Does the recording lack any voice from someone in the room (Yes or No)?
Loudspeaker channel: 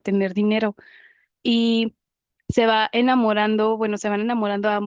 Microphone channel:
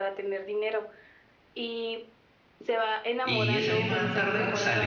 No